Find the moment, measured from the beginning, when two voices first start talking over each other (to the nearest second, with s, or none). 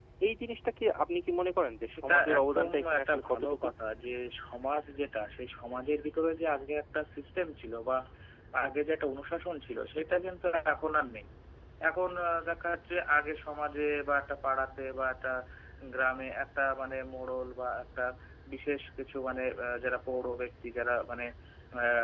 2 s